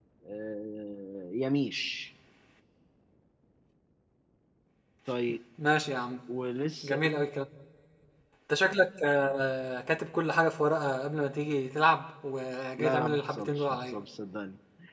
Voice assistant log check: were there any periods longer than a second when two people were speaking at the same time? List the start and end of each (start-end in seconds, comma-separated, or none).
12.8-14.0